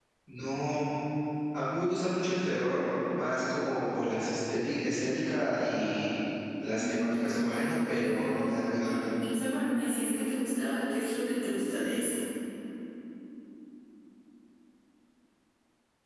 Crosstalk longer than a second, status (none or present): present